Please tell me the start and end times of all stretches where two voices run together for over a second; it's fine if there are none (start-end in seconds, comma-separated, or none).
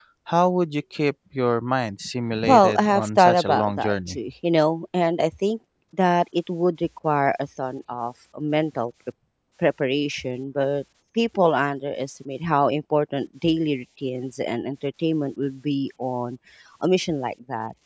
2.4-4.2